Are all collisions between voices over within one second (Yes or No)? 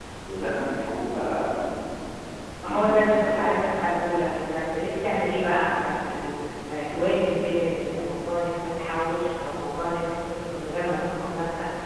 Yes